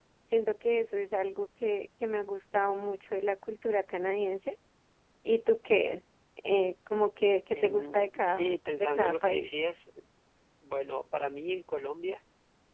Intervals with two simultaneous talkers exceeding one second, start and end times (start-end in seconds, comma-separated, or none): 7.5-9.6